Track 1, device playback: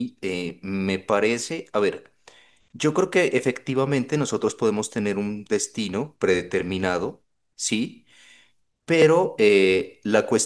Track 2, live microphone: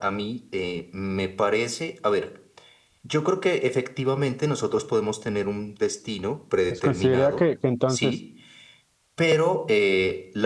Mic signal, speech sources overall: both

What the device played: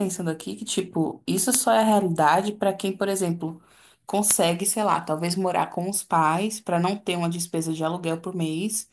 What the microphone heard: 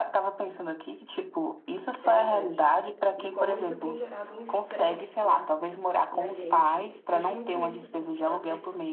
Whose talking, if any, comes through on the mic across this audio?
both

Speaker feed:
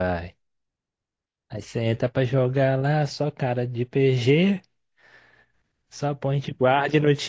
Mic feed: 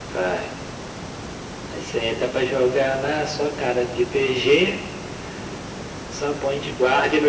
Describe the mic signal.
echo only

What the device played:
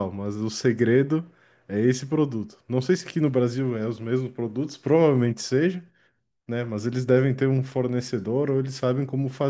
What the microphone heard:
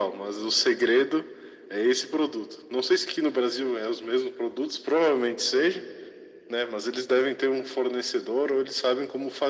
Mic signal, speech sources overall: echo only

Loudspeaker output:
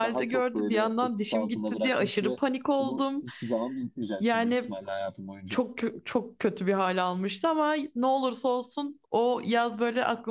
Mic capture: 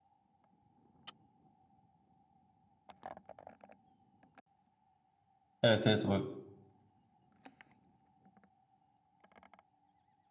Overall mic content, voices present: user only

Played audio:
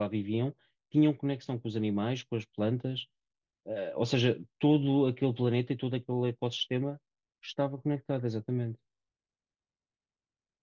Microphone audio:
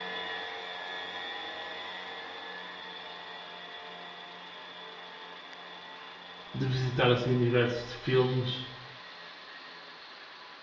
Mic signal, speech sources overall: user only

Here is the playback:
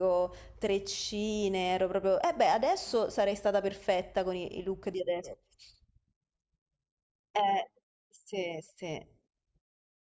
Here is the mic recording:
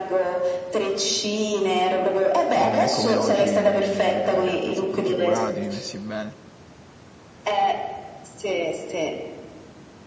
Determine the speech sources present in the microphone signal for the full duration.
both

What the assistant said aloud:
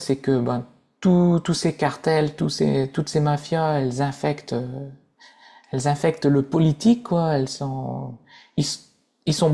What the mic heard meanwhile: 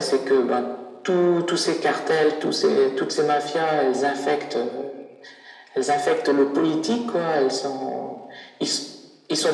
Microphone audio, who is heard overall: echo only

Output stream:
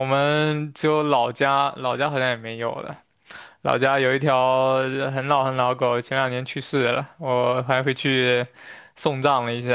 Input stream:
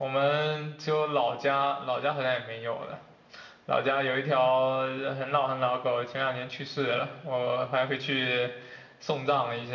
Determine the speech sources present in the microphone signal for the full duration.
echo only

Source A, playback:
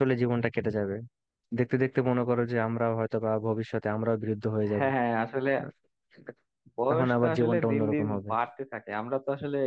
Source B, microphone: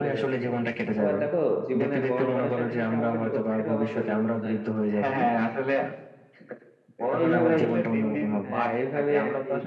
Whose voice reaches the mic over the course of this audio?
both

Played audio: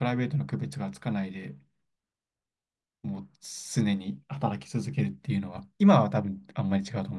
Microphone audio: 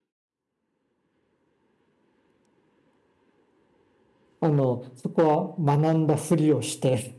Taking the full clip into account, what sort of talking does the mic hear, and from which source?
user only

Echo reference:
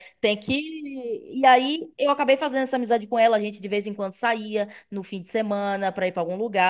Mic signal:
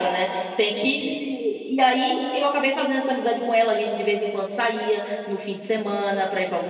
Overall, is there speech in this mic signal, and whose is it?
echo only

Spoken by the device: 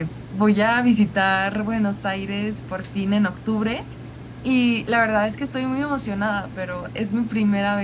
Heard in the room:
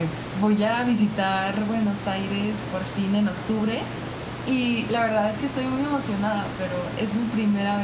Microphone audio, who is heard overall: echo only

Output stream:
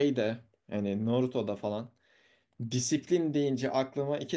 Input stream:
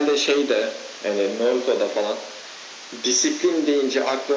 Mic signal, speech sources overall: echo only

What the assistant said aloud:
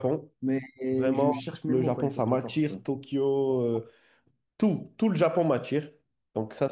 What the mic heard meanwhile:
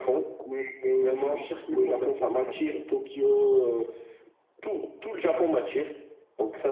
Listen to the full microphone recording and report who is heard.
echo only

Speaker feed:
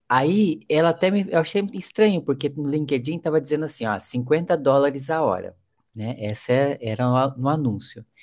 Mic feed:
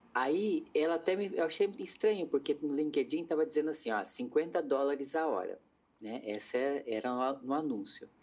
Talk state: echo only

